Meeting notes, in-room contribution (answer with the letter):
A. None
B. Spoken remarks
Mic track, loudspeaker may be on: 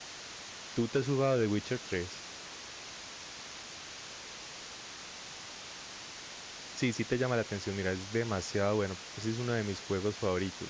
B